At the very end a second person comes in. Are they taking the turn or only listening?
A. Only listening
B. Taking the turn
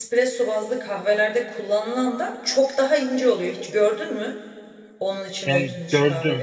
B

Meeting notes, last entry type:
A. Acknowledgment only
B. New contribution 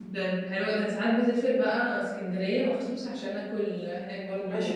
B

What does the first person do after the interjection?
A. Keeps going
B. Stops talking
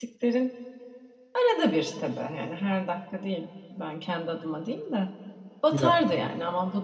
A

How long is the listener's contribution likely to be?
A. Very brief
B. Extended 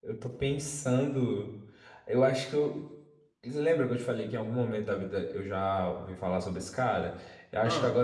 A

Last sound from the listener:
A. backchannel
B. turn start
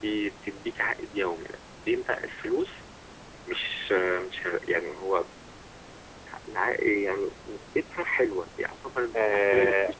B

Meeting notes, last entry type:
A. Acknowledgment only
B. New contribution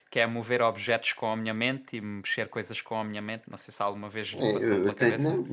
B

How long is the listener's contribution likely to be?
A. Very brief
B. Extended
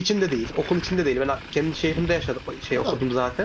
B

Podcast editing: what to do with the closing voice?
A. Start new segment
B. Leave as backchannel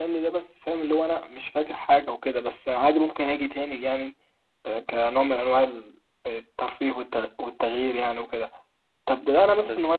B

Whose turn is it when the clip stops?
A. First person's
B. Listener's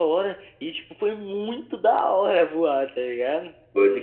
B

